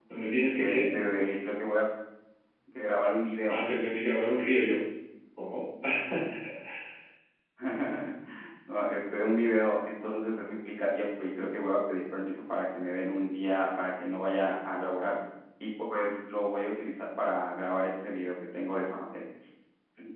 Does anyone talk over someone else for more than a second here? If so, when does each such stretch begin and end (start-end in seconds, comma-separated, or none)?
none